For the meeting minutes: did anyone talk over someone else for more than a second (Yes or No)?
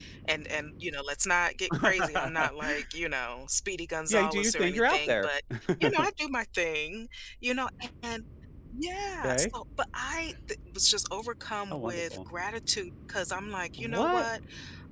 Yes